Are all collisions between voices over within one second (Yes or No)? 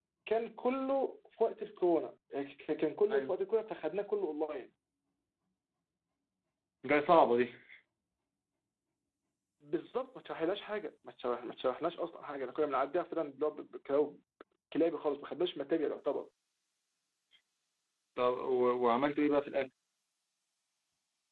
Yes